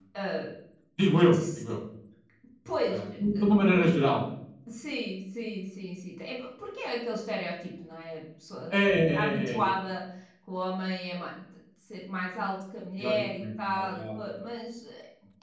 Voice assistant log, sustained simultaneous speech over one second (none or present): present